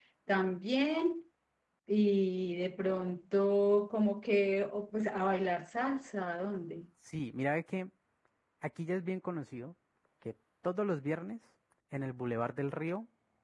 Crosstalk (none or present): none